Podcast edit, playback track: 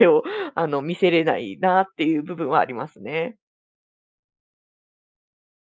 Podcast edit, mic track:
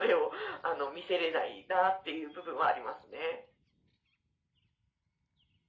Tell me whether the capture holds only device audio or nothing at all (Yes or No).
Yes